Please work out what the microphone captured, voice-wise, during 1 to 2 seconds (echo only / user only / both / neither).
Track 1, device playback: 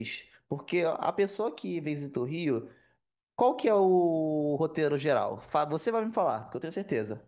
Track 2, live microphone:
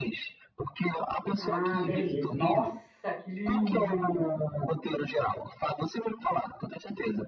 both